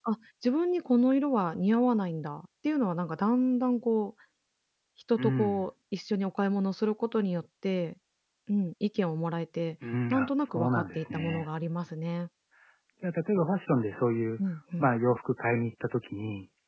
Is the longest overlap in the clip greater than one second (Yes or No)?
Yes